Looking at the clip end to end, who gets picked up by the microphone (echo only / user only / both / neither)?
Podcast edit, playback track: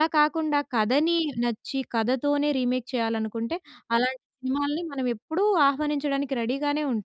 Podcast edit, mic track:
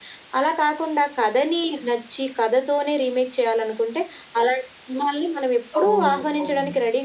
both